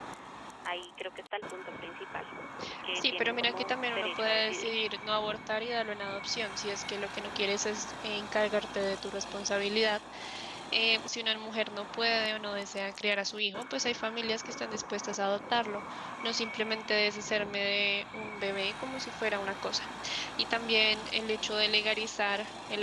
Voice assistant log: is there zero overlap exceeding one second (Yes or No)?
No